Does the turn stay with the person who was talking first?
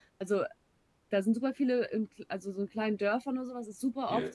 Yes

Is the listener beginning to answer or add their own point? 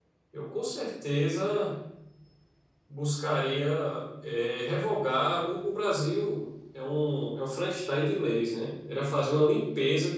No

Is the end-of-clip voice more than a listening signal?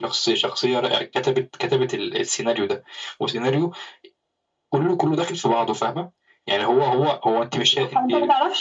Yes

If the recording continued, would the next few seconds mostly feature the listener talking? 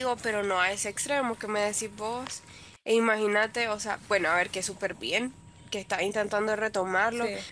No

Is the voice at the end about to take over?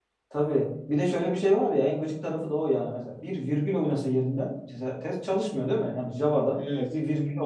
No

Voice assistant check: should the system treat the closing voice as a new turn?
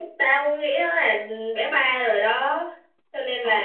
Yes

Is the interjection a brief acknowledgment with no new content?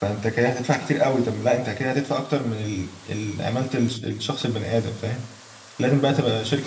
Yes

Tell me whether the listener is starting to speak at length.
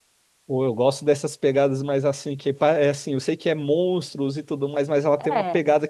No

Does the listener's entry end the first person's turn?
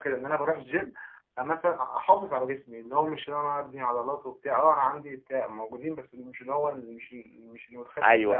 Yes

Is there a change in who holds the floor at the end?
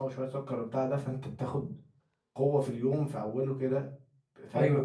Yes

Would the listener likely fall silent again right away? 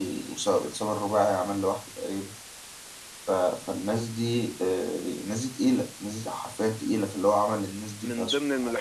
No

